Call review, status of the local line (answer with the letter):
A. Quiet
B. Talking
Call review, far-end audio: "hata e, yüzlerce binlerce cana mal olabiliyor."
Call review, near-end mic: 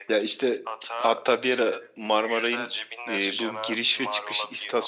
B